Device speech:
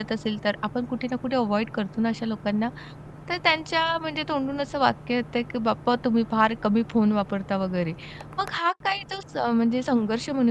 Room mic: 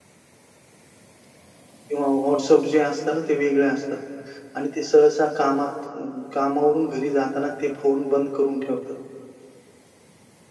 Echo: none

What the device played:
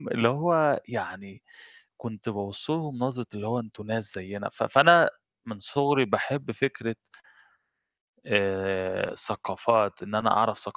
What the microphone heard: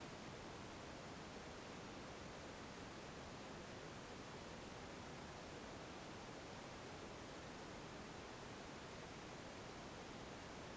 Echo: none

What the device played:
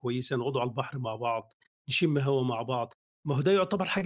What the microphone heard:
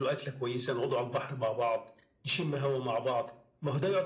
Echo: present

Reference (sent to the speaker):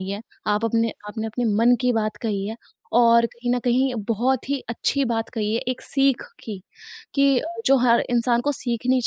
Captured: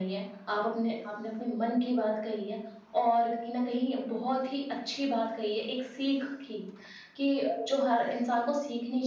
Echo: present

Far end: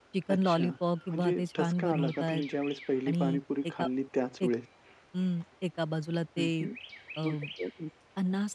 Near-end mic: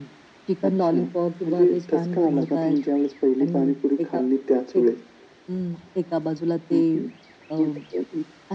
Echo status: present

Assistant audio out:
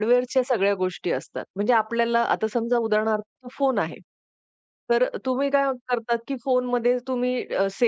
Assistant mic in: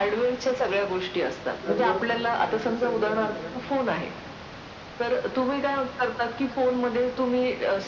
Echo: present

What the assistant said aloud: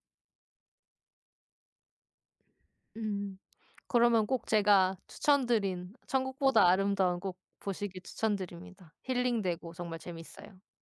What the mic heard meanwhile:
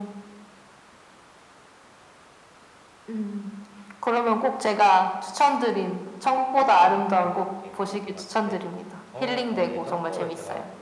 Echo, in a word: present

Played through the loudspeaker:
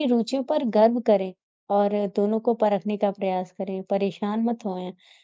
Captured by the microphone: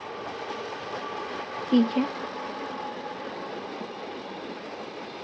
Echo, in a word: none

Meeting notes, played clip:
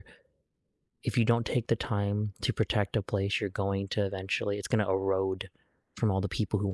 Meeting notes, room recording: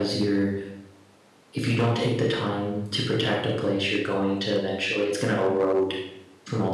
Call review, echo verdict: present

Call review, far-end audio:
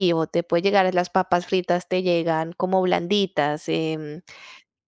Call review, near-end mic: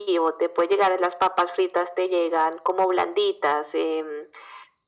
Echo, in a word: present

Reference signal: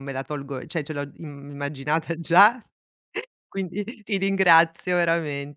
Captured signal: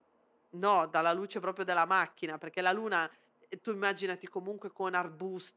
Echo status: none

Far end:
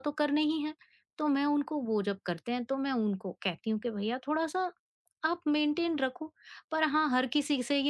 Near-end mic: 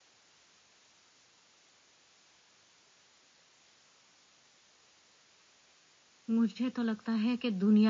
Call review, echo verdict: none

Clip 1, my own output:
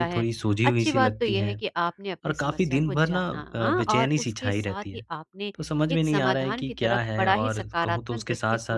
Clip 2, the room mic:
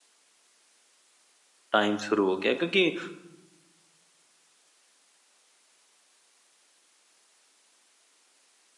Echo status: none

